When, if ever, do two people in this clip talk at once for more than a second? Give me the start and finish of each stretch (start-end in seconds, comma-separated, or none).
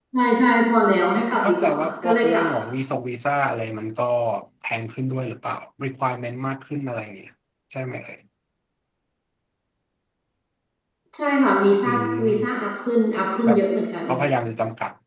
1.1-2.5